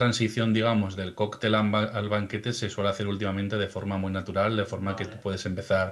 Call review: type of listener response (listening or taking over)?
listening